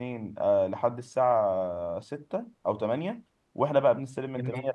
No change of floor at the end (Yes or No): Yes